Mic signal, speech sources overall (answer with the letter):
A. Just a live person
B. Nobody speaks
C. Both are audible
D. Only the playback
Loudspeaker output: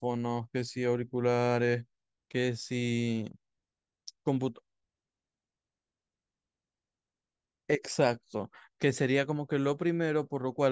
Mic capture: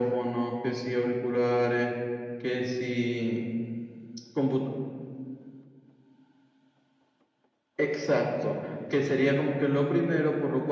D